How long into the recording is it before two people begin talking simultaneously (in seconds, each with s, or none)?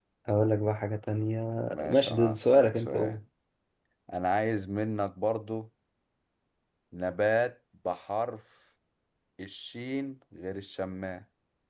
1.9 s